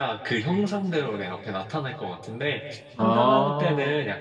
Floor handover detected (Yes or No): No